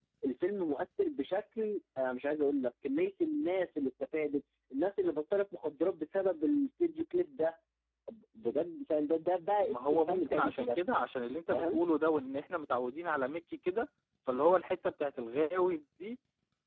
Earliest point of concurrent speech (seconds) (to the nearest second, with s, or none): 10 s